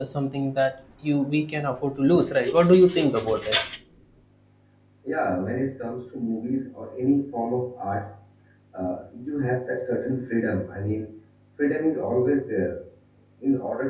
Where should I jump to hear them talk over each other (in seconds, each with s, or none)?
none